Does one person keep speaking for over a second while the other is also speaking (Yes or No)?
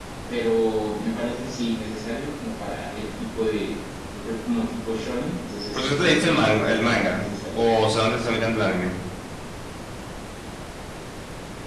Yes